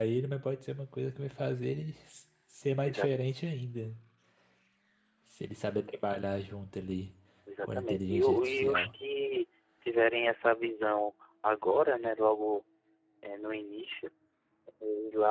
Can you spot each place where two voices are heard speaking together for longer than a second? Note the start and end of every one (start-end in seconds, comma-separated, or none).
7.6-8.9